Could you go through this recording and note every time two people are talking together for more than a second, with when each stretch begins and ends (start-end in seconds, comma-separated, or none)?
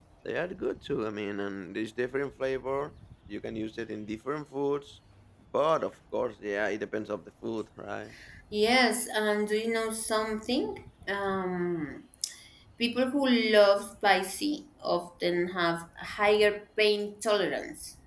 none